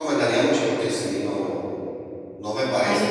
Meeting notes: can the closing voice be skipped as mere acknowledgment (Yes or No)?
No